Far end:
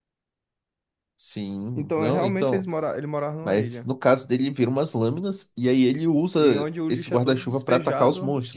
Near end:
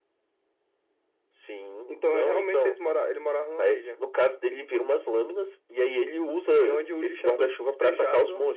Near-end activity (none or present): none